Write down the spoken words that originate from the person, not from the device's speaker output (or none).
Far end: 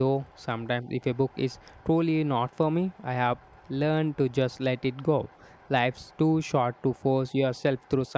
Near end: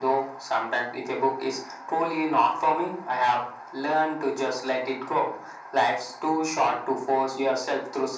none